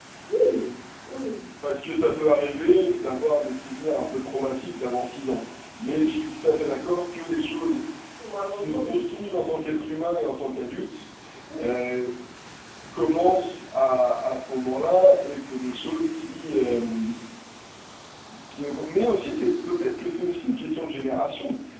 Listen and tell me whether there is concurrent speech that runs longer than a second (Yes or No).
No